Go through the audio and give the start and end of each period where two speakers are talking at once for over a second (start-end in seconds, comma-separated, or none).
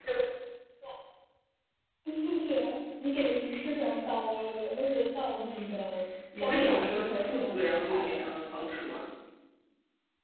6.4-8.1